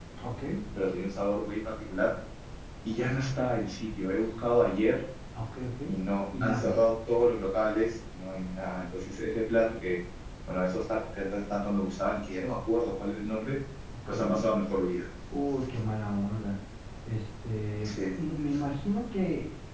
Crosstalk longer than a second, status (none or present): none